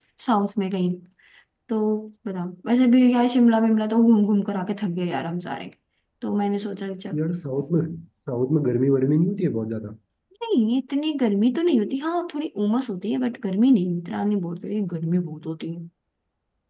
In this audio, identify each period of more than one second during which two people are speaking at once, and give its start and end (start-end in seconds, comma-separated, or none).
none